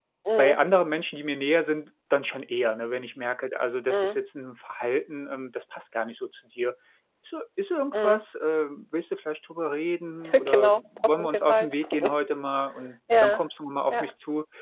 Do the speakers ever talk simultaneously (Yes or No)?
Yes